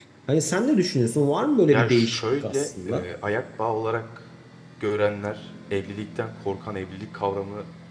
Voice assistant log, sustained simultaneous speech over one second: present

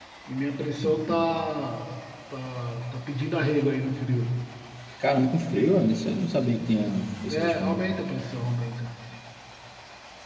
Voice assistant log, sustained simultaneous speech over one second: none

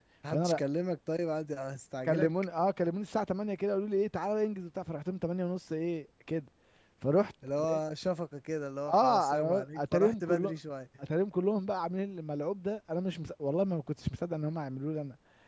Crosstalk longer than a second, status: present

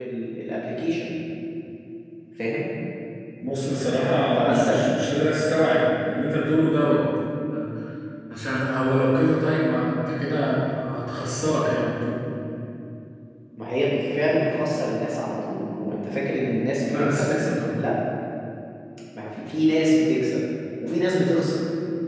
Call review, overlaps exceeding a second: none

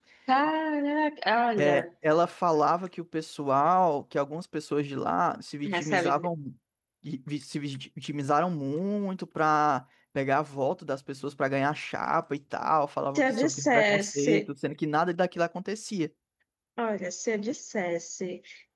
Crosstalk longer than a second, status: present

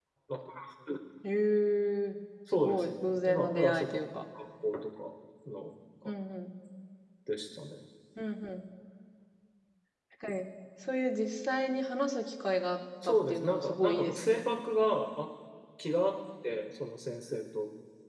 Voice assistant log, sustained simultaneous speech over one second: present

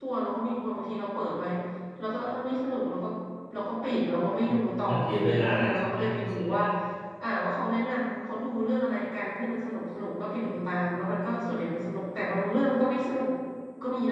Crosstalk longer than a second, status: present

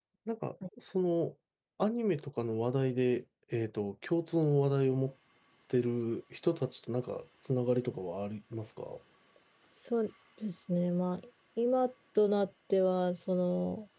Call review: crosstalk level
none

